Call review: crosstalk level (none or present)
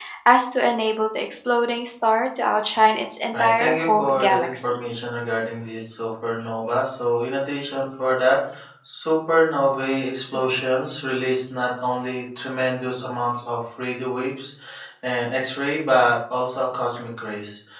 present